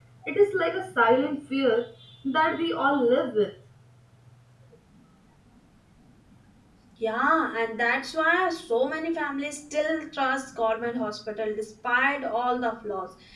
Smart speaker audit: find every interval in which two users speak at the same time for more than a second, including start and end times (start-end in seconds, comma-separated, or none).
none